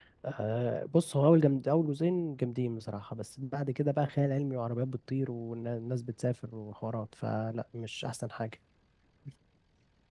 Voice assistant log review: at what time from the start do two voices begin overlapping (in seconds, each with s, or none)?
none